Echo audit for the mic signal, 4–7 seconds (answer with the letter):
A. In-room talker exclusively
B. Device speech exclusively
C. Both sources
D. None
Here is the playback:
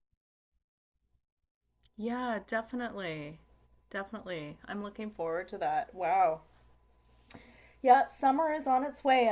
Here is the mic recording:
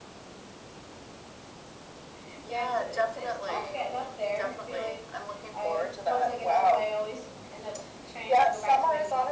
C